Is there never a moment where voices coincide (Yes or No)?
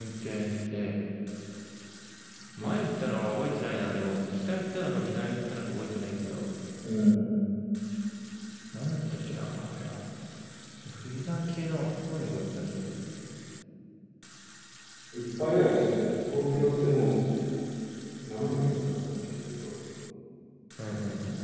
Yes